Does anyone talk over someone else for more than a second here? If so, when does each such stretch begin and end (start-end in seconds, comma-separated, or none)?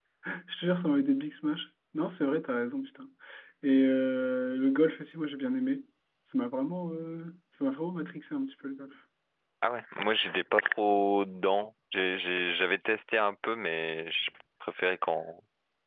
none